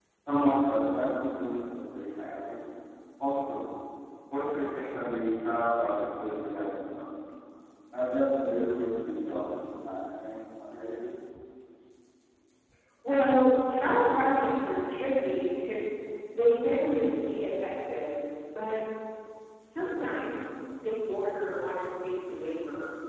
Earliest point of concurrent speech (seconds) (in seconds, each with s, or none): none